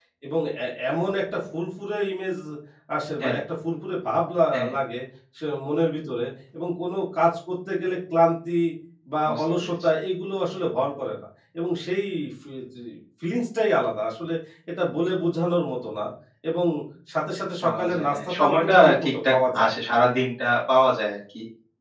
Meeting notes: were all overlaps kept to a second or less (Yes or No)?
No